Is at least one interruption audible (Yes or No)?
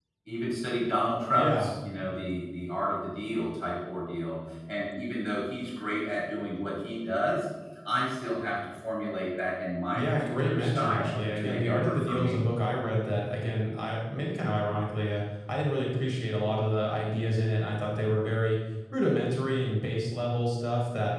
Yes